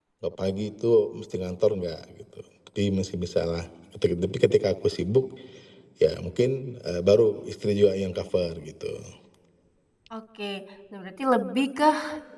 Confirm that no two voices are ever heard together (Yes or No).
Yes